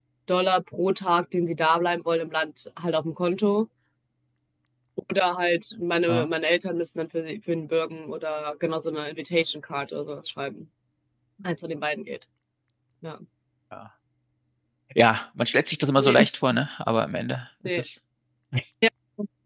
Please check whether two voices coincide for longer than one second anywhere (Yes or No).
No